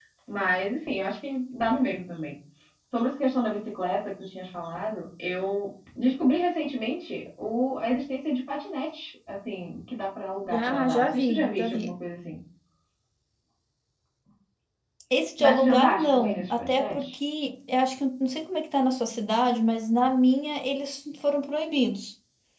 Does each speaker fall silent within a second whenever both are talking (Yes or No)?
No